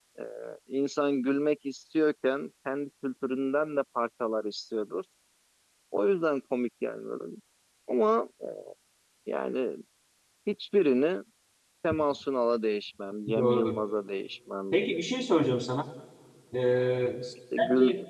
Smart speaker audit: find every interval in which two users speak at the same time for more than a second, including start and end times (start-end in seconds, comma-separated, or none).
none